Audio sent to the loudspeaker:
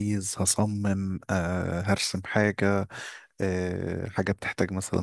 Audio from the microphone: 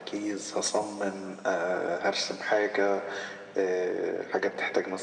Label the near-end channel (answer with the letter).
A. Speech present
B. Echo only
B